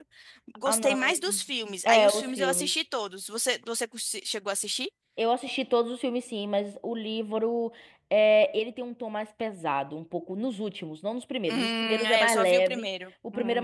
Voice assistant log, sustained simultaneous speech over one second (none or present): present